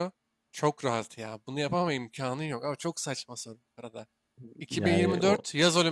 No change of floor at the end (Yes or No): Yes